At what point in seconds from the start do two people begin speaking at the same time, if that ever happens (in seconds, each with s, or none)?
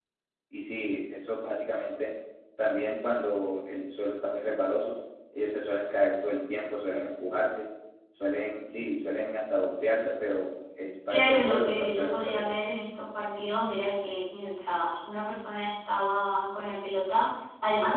11.1 s